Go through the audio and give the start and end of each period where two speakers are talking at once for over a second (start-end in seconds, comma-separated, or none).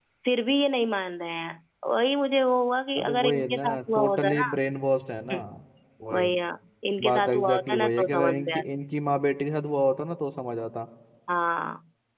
3.0-4.5, 7.0-8.6